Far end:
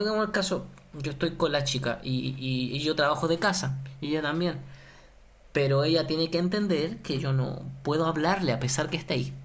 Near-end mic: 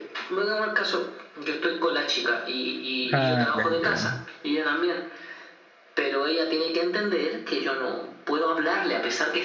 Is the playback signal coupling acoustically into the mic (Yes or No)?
Yes